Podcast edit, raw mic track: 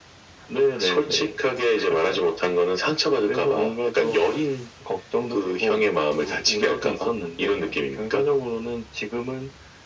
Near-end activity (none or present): none